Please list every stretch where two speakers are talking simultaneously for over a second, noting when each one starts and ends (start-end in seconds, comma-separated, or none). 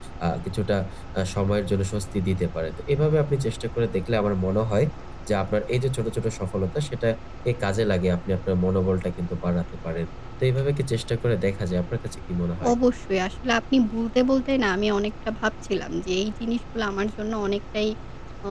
none